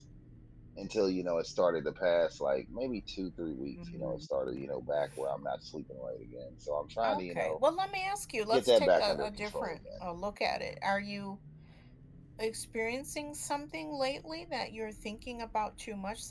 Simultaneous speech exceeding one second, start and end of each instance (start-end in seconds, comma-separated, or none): 8.5-9.8